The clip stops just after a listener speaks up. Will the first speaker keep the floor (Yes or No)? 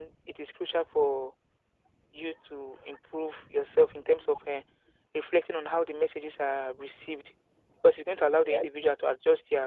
Yes